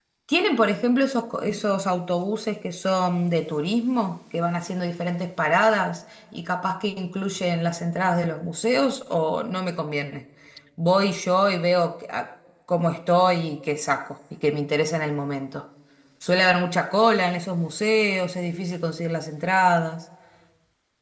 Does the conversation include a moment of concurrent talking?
No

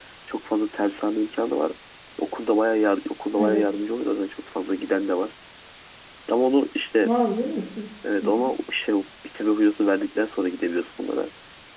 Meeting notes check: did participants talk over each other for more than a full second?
No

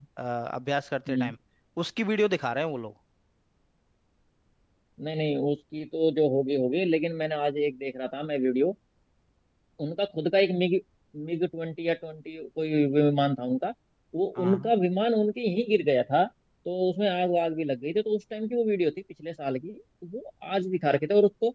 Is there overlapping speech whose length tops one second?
No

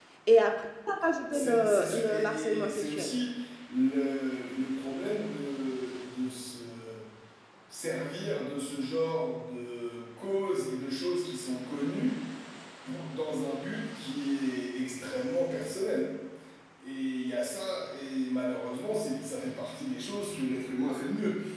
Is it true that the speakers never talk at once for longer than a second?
No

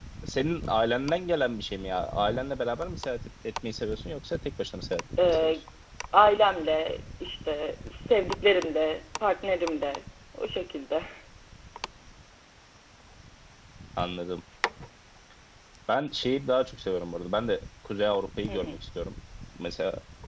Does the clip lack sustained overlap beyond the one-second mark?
Yes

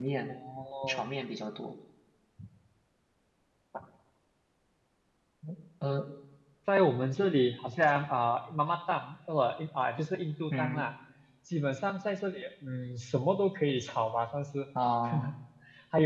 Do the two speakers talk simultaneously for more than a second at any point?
No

